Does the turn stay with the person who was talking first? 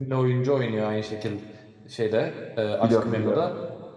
Yes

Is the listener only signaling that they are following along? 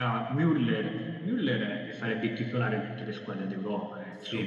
No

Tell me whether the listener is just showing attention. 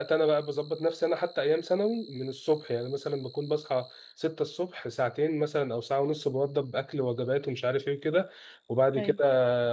Yes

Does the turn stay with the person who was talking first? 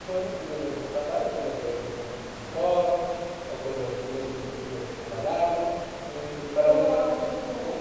No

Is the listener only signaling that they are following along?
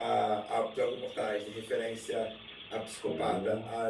Yes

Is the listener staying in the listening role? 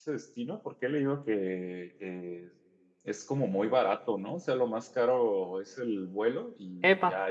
Yes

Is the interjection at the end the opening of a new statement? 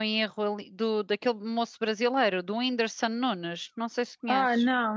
Yes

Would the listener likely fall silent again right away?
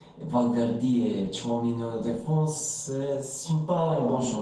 No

